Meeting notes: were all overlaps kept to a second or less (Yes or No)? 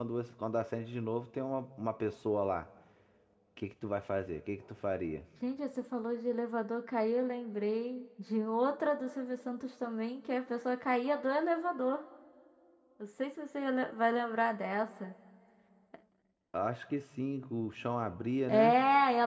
Yes